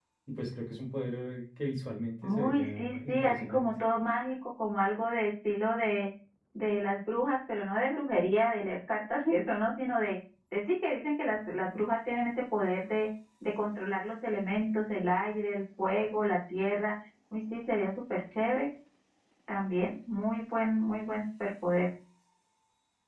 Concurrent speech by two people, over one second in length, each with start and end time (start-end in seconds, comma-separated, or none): 2.2-3.7